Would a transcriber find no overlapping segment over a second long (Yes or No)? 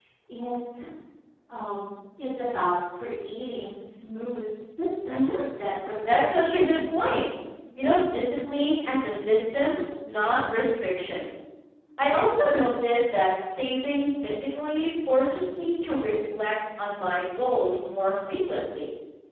No